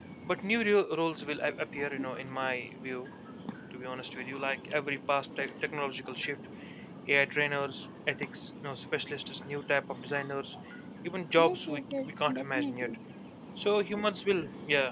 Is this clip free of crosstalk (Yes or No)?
No